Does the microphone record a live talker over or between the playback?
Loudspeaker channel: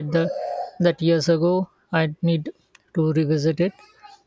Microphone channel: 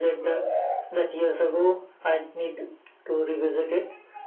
No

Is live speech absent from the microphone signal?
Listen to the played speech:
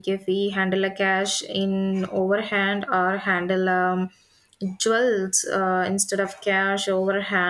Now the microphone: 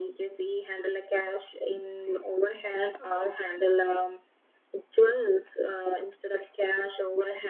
Yes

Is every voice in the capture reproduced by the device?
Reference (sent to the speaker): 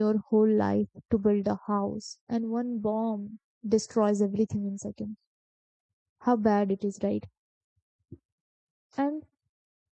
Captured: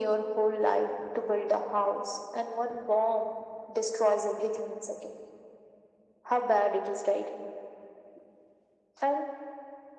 Yes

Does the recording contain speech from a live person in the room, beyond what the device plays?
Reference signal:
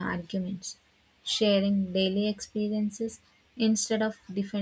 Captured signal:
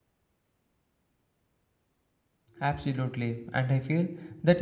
Yes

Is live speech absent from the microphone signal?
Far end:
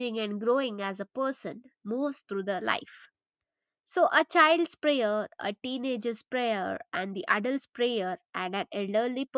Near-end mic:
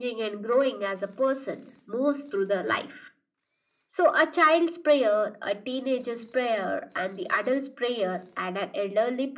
Yes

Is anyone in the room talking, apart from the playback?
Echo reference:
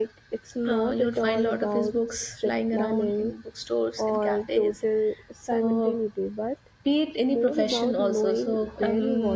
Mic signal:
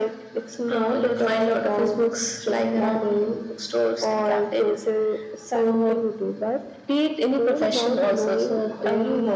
No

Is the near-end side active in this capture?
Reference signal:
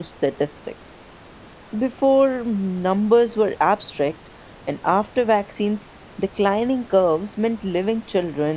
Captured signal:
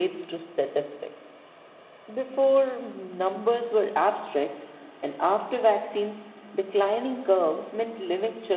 No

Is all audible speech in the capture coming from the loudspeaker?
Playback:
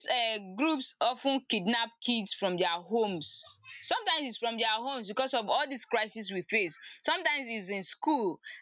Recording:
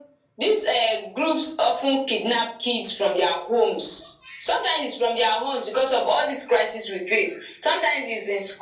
Yes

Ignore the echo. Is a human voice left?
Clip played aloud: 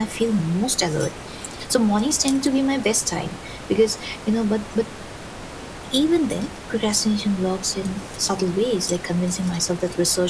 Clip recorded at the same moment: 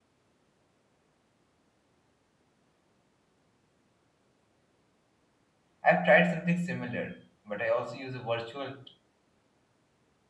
Yes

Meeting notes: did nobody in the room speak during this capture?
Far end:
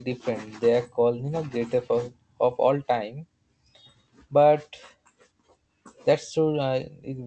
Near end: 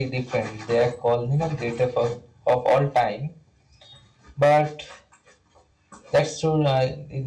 Yes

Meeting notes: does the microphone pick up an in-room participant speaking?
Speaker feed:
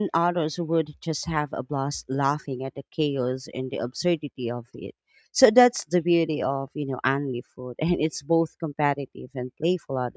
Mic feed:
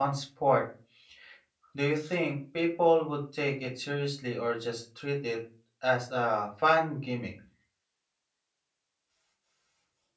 Yes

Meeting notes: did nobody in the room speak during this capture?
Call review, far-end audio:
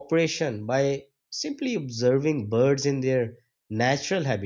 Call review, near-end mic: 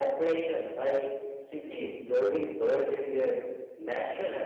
Yes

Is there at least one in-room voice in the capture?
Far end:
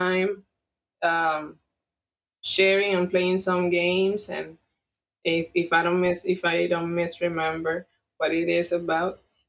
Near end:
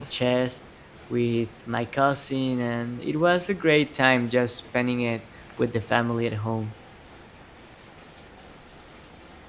Yes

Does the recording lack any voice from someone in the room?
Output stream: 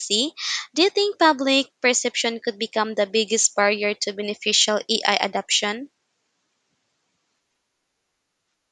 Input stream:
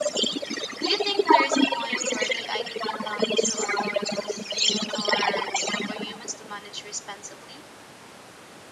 No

